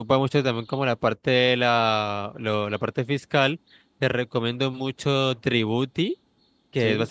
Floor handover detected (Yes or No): No